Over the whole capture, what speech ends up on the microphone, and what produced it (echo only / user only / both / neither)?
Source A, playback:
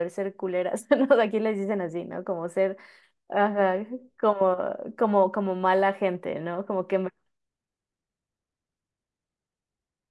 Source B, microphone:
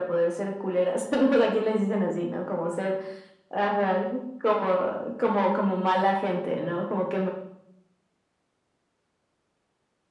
echo only